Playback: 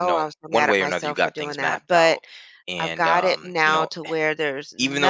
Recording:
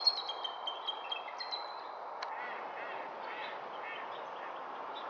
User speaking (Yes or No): No